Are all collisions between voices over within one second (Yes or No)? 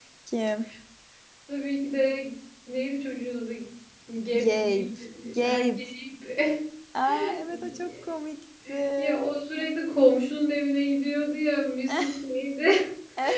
No